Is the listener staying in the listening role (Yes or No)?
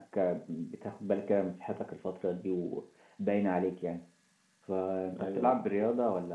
Yes